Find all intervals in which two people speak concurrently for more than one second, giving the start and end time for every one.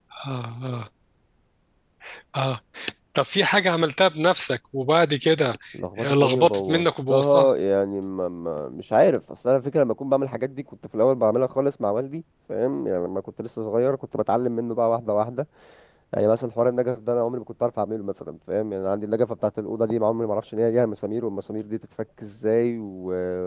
6.0-7.5

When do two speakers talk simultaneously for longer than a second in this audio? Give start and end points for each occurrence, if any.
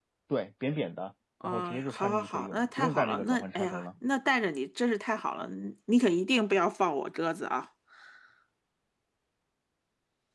1.4-3.9

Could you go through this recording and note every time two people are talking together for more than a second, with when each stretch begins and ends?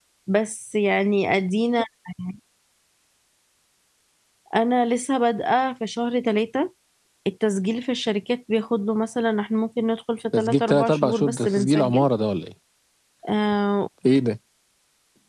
10.4-12.1

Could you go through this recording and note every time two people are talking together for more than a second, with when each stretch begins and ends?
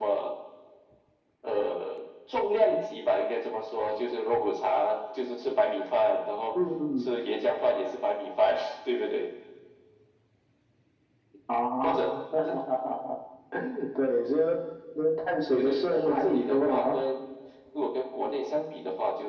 15.5-17.0

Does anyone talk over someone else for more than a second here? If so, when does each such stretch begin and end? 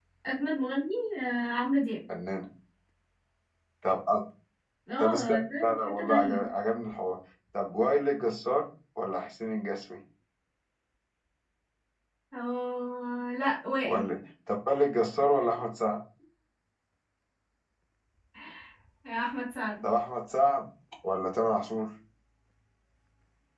5.0-6.5

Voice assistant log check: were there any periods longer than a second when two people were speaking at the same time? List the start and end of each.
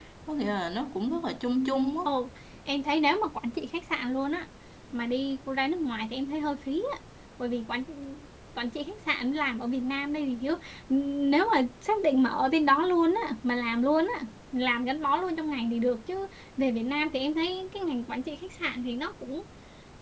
none

